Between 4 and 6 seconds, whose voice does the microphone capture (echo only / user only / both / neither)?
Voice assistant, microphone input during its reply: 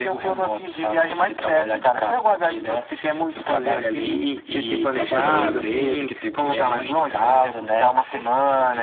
both